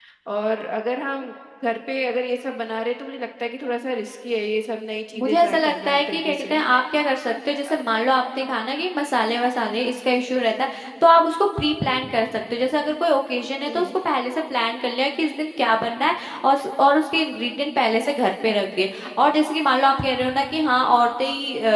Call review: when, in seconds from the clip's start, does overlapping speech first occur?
5.2 s

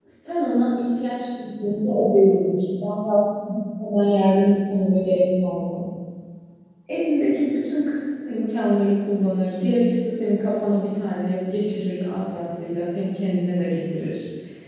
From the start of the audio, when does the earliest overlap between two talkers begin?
none

